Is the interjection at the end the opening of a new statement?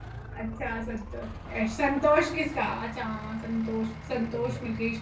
No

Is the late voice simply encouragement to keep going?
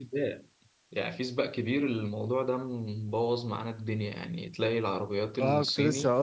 No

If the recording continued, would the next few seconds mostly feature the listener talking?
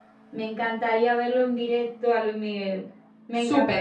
Yes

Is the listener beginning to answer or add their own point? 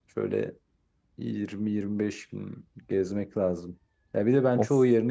No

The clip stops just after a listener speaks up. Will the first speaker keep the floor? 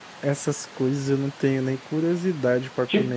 No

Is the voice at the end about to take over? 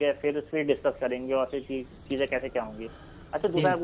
No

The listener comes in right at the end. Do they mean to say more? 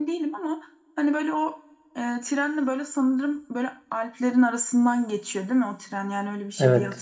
Yes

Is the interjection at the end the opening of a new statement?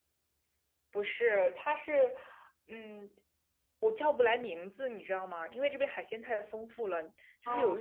No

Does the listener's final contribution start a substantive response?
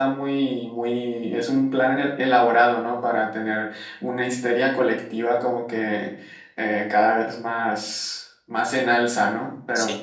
No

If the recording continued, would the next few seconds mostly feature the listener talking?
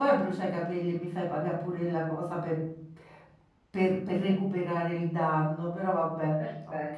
Yes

